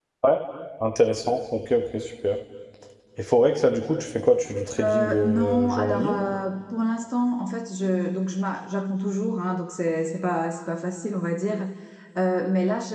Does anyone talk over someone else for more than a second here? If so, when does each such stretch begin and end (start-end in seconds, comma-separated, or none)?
4.8-6.1